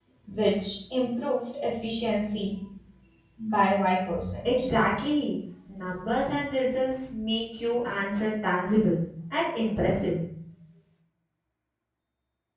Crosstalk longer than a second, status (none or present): none